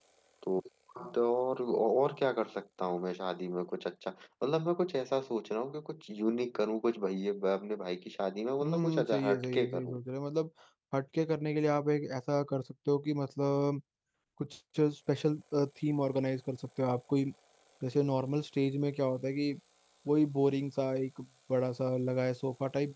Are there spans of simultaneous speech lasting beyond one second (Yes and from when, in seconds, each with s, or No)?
Yes, from 8.6 s